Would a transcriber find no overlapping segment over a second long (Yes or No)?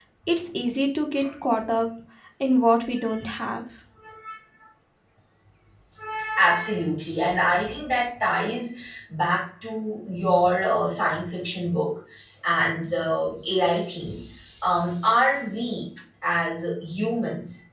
Yes